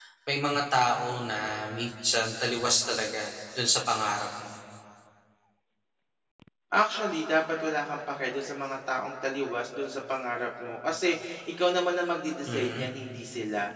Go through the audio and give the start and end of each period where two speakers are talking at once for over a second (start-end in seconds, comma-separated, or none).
none